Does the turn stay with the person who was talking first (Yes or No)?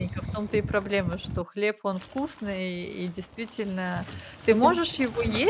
Yes